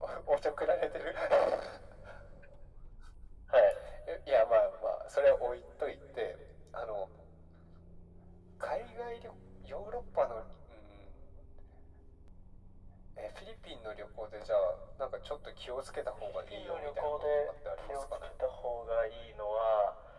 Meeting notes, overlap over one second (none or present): present